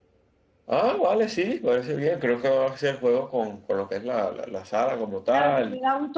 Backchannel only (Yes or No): No